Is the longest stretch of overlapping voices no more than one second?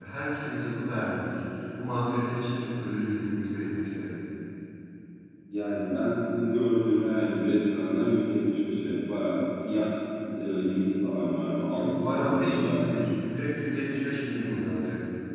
No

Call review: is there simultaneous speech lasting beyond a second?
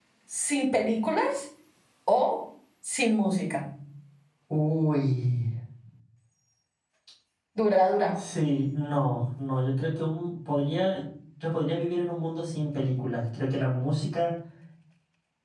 No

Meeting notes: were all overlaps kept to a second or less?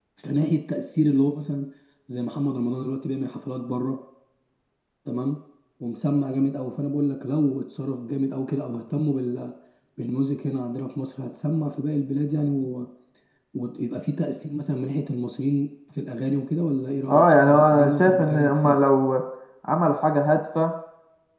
No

